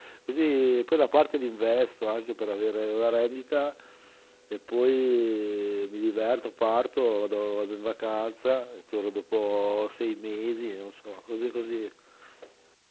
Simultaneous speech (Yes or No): No